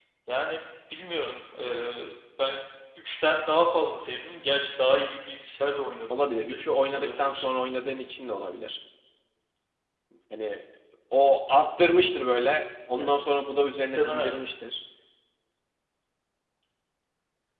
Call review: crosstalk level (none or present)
present